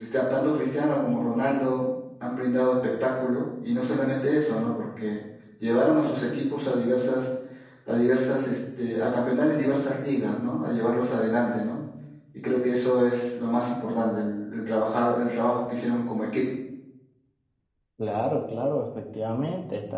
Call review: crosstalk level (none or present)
none